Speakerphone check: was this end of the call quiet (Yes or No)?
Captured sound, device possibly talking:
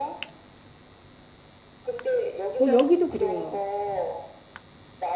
No